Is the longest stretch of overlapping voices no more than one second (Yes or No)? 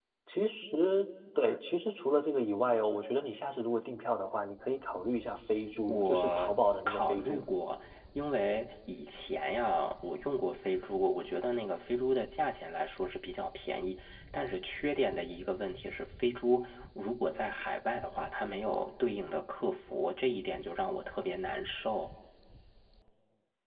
No